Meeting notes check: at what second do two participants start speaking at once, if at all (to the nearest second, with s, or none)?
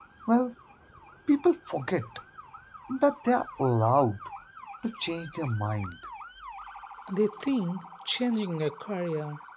none